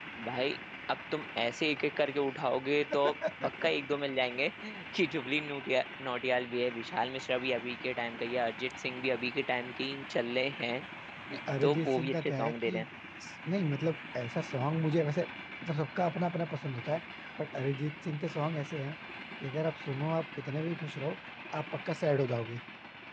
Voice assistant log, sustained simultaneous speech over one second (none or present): present